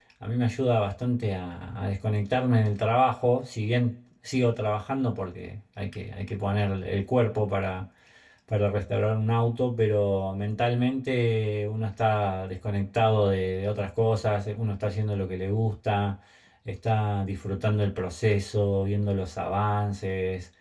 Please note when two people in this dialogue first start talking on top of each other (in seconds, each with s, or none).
none